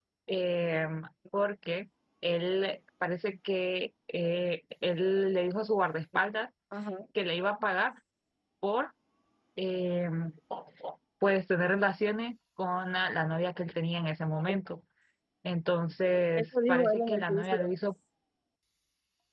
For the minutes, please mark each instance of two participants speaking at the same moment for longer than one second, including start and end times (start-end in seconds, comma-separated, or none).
16.4-17.7